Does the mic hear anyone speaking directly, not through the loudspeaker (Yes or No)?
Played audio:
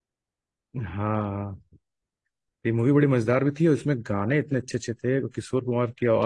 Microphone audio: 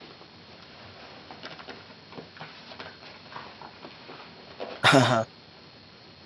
Yes